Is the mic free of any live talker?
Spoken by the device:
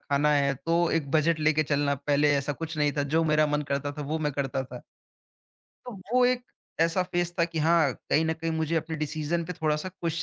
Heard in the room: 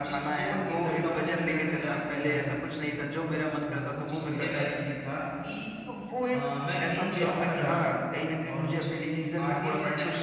No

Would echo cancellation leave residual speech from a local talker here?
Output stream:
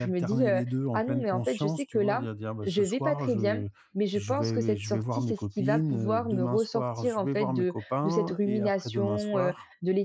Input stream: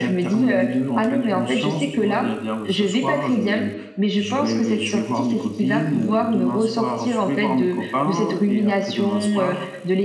No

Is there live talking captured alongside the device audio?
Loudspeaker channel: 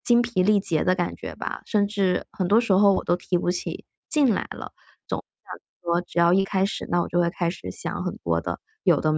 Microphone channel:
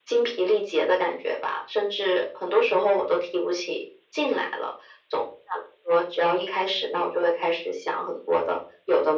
No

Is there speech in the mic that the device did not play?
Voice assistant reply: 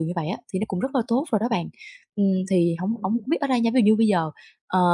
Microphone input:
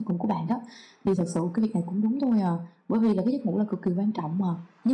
Yes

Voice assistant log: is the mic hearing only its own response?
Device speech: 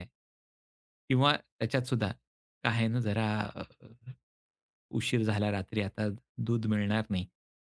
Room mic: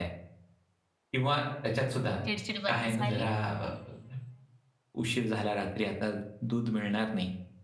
No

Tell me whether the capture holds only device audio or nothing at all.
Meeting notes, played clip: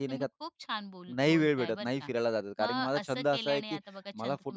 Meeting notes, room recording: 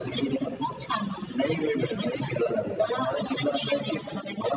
Yes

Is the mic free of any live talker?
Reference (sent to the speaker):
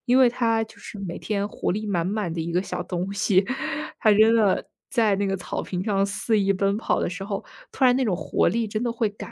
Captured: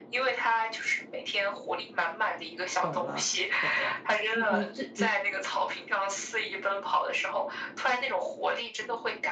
No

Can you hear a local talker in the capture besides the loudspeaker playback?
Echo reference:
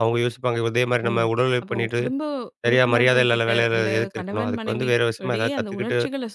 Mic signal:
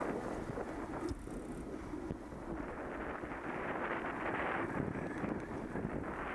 No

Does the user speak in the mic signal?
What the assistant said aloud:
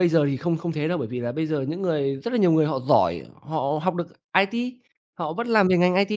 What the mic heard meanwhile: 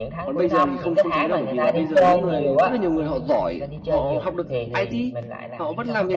Yes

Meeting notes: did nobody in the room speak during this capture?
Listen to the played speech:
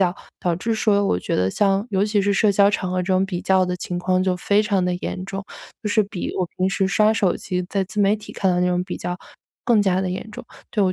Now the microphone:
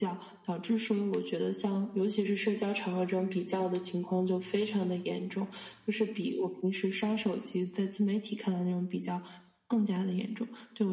Yes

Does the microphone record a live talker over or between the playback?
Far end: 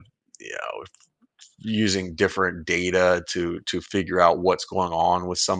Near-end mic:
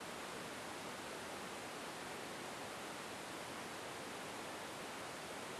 No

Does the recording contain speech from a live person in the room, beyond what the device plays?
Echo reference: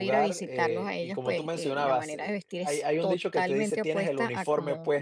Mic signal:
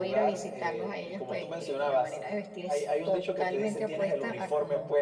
No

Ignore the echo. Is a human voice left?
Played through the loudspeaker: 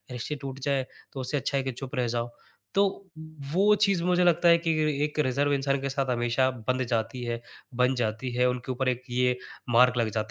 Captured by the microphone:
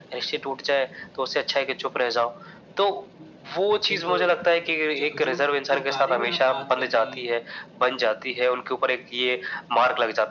Yes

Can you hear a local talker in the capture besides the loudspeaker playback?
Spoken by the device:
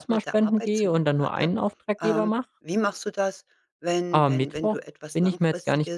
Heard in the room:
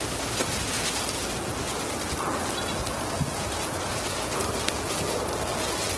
No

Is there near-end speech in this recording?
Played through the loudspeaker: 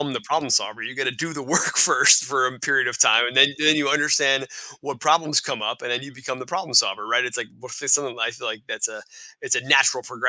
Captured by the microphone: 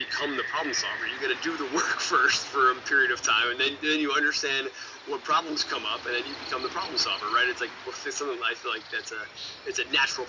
No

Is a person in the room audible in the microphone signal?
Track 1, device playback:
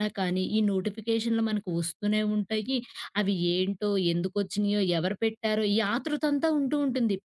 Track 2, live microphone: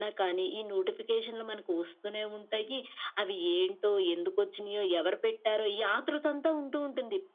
No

